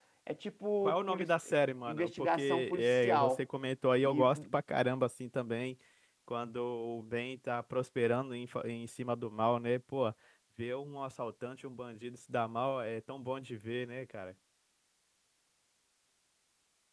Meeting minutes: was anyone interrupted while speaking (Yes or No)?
Yes